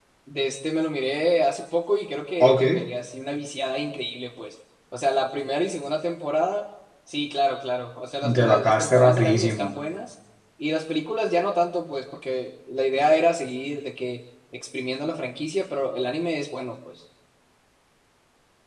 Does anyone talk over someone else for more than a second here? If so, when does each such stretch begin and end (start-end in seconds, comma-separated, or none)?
8.3-9.8